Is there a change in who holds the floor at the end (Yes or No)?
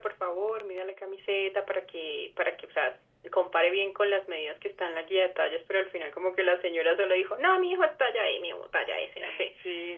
Yes